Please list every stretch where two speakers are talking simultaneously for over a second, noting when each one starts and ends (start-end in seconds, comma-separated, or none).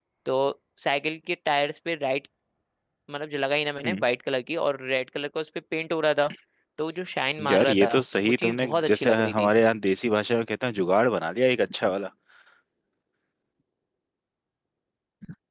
7.5-9.5